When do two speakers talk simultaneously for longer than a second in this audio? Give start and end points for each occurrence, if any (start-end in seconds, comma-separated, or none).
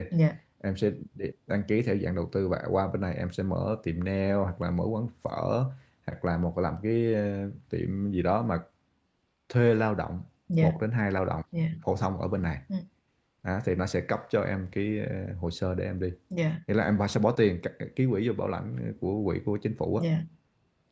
none